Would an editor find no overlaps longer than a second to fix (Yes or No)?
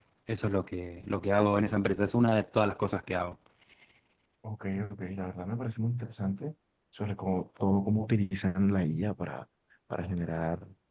Yes